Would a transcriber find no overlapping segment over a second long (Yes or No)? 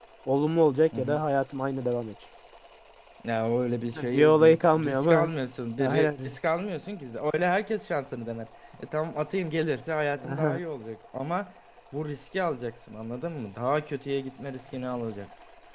No